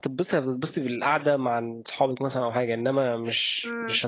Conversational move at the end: taking over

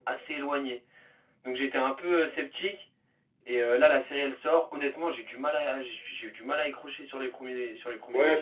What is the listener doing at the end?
taking over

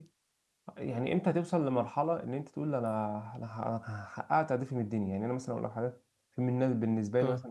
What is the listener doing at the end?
listening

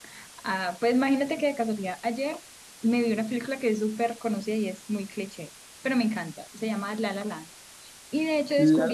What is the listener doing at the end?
listening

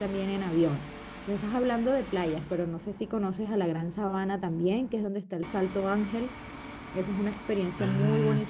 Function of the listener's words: taking over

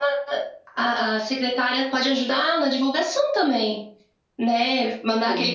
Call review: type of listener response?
listening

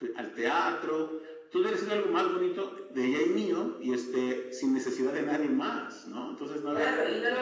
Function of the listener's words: taking over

